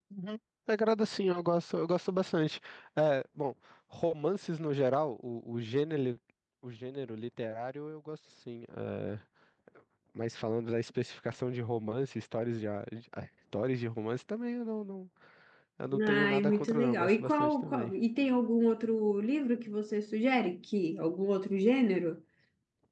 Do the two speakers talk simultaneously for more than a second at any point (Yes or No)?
Yes